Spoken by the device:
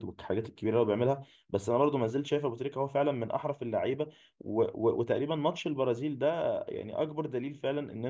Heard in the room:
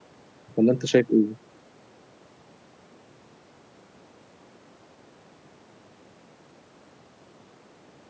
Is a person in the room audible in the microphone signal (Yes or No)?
Yes